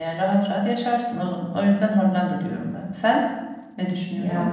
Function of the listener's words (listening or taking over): taking over